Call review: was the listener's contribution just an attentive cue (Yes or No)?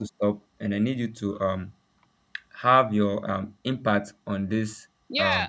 No